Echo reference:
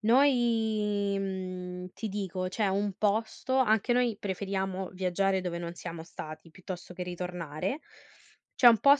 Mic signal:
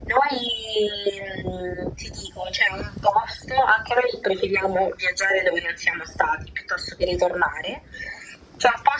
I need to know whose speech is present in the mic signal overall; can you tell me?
echo only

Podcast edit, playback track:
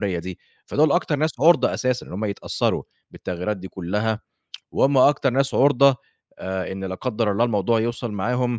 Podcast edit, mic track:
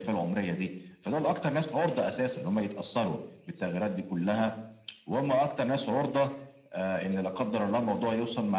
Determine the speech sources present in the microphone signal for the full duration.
echo only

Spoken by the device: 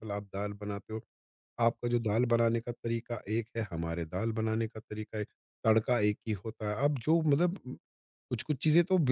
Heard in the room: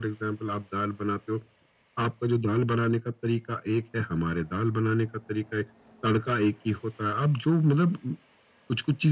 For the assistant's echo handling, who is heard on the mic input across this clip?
echo only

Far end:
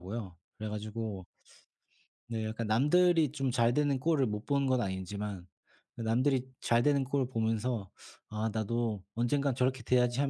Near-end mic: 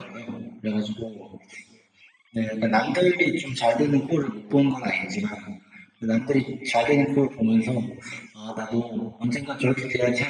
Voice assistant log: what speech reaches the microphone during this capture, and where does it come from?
echo only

